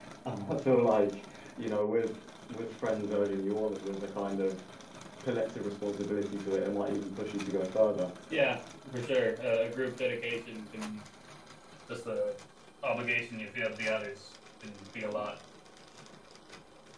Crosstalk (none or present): none